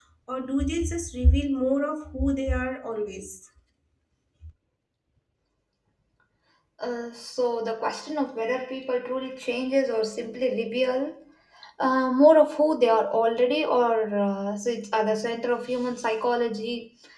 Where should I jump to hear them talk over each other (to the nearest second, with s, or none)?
none